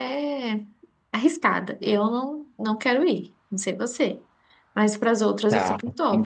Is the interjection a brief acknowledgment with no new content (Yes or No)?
No